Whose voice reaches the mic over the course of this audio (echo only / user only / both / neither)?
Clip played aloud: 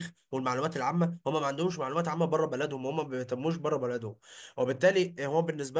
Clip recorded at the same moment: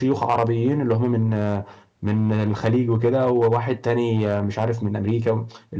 user only